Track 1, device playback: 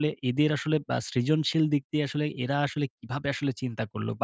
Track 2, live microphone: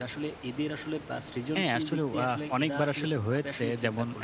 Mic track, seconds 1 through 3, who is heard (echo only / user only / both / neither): both